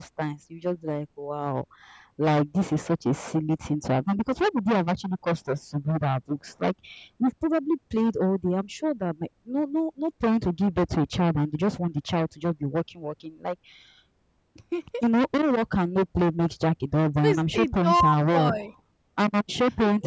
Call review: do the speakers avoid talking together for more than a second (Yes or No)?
No